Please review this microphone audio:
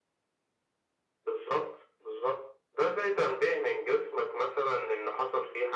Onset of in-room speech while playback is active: none

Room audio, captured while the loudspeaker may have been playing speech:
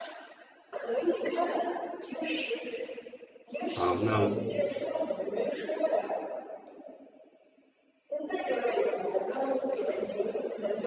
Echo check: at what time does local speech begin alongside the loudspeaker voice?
3.7 s

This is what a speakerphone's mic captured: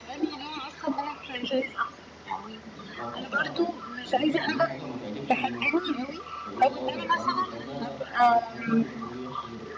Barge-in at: 3.0 s

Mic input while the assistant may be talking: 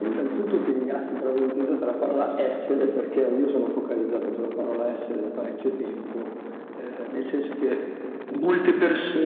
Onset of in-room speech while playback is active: none

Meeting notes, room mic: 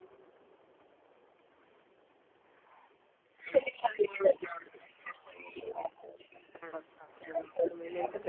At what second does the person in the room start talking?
5.8 s

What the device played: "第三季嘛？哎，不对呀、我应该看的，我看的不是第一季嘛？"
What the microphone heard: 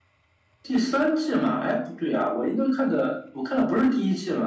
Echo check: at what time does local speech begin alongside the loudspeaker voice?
none

